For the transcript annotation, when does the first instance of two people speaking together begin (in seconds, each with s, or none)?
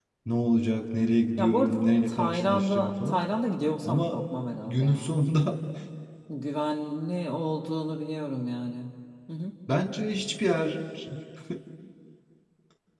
1.4 s